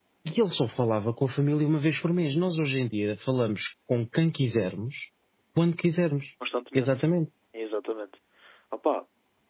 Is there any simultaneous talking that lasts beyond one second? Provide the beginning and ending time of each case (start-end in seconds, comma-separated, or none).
none